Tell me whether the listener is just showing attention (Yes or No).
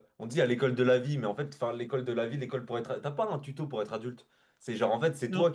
Yes